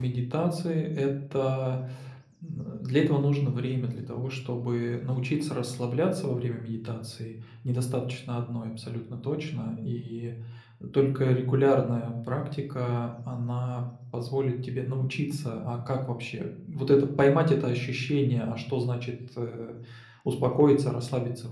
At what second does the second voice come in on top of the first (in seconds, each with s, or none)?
none